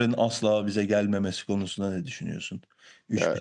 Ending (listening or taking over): listening